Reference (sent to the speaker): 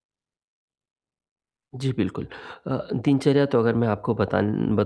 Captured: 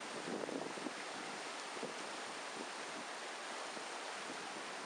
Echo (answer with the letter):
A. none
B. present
A